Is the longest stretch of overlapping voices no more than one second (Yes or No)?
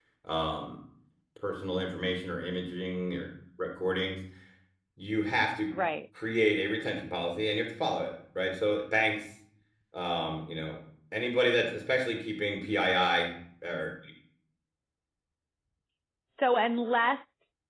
Yes